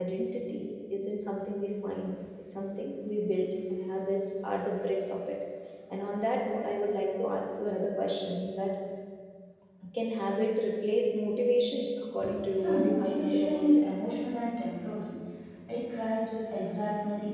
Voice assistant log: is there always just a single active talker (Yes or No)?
No